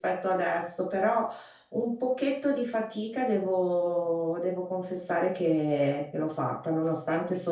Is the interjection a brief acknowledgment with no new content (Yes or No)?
Yes